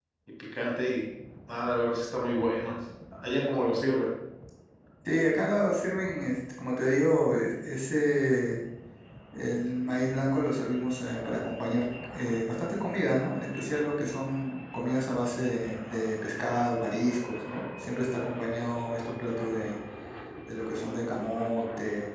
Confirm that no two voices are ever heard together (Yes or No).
Yes